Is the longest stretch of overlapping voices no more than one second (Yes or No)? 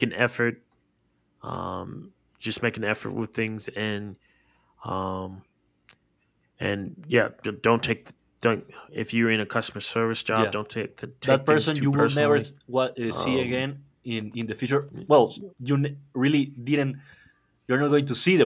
No